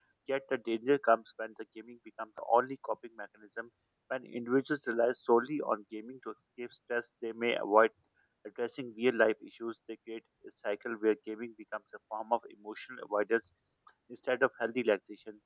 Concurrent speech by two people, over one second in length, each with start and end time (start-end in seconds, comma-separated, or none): none